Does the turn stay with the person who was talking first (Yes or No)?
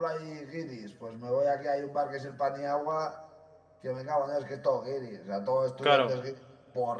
Yes